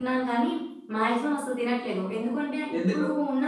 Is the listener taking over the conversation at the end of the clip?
No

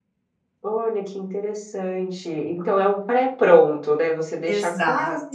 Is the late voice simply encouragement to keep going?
Yes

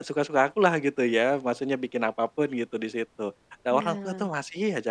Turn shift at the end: No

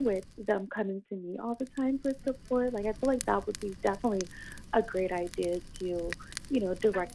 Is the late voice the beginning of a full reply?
No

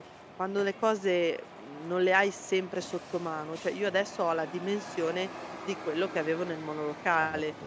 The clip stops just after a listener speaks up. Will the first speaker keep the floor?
Yes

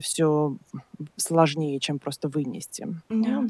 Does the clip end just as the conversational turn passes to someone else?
No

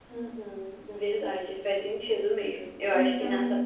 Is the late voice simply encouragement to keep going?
Yes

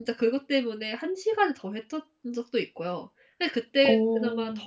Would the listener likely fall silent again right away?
Yes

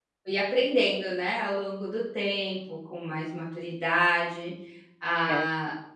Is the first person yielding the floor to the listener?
No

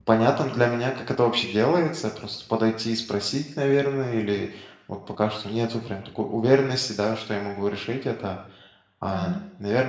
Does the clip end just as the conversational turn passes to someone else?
No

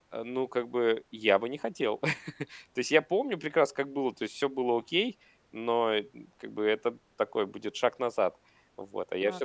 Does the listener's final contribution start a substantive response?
Yes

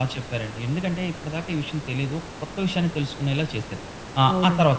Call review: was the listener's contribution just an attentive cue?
No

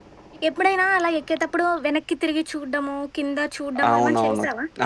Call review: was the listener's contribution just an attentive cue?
No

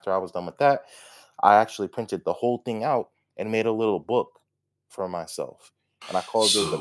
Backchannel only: No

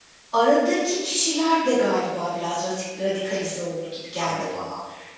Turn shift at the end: Yes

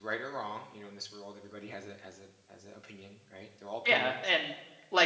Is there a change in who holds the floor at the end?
Yes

